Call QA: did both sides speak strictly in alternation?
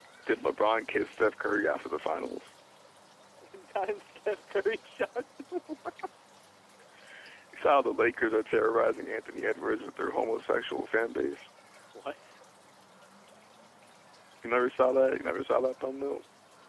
Yes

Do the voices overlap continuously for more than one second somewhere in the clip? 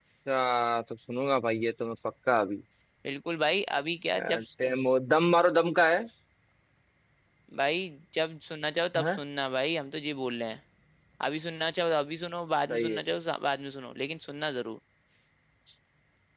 No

